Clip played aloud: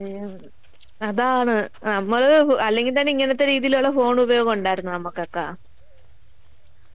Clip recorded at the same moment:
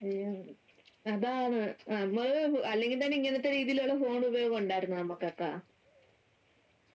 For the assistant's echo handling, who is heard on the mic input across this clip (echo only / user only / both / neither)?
echo only